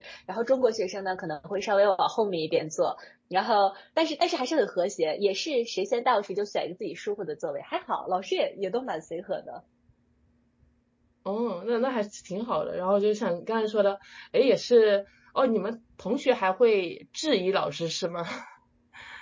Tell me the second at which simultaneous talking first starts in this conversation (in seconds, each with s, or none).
none